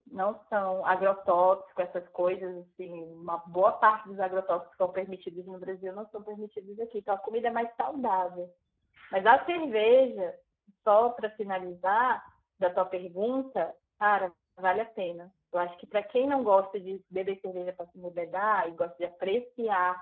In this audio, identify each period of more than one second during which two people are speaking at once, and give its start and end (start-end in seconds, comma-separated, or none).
none